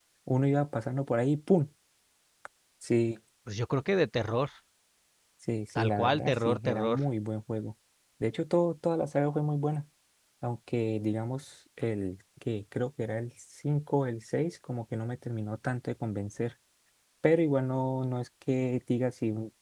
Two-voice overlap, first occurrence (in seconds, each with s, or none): 5.8 s